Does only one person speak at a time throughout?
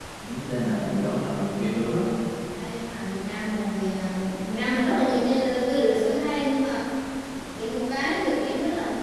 Yes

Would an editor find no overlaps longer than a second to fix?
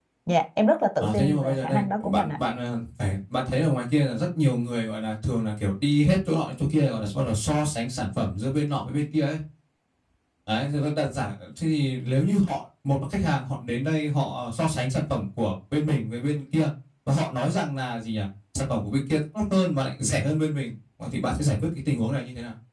No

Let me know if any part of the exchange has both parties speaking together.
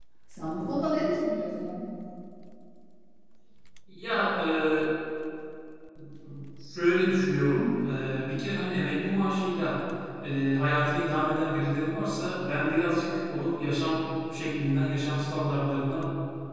No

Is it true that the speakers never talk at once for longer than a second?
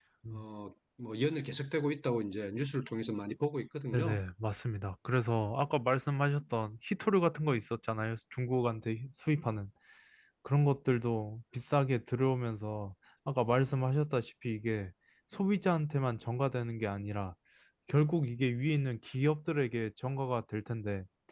Yes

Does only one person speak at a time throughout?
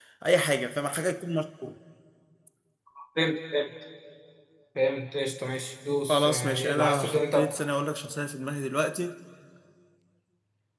No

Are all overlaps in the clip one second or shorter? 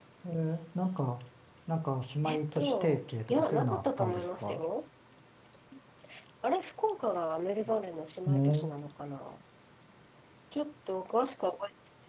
No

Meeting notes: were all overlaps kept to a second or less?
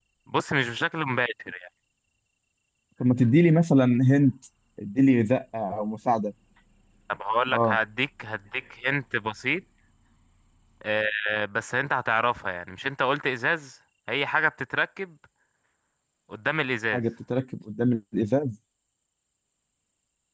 Yes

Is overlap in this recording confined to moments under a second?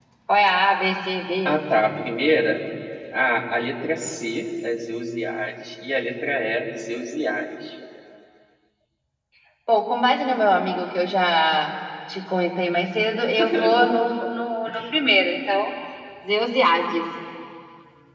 Yes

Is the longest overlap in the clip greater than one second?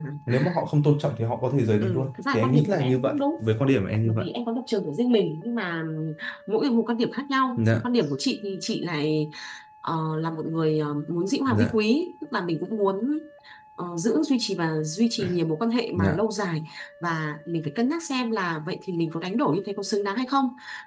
Yes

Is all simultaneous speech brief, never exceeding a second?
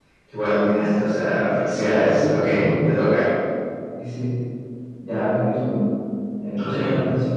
Yes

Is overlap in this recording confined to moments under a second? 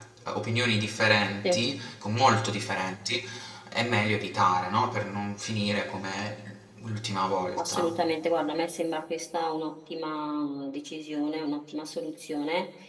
Yes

